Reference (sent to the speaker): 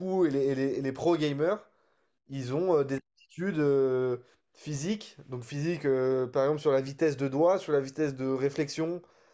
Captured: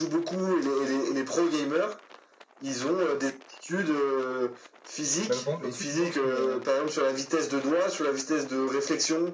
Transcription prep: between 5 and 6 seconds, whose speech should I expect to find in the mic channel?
both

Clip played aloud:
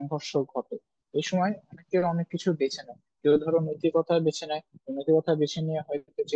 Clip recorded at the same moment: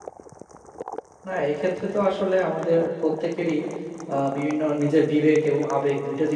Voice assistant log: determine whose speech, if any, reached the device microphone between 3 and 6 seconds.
user only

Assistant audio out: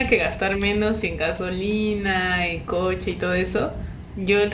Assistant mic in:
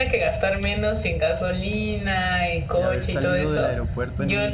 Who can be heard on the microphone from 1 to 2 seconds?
echo only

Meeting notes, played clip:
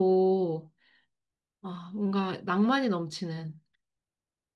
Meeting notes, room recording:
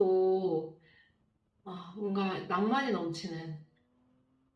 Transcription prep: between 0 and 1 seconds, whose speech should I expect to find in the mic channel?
echo only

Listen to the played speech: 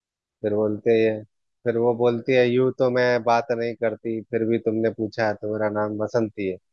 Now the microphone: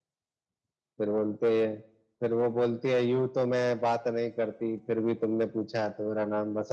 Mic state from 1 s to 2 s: echo only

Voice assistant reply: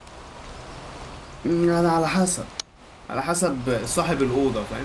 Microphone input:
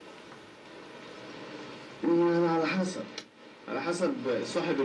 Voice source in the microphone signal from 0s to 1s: neither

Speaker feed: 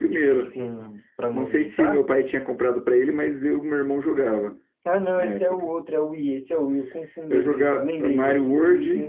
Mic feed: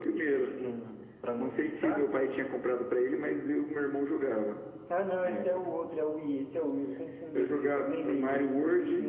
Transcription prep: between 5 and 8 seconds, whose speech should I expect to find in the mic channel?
echo only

